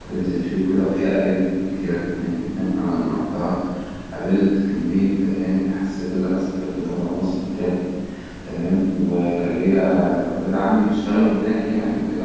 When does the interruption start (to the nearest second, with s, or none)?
none